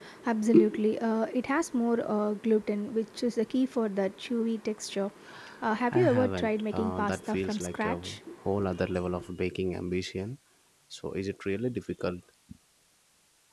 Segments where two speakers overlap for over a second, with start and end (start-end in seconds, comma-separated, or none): 5.9-8.2